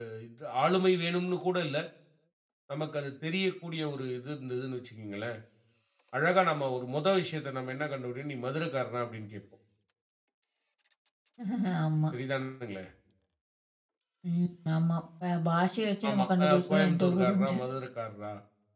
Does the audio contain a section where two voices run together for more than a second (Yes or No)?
Yes